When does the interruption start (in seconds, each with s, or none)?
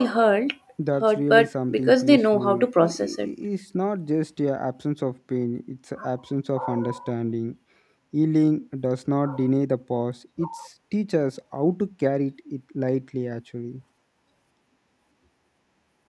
1.0 s